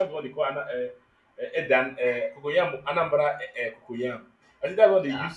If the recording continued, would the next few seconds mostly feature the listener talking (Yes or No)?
No